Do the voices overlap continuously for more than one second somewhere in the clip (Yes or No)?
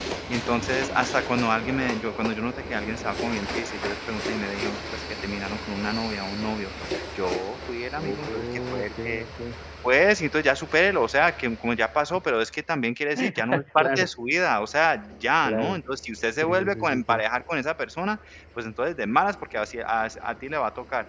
Yes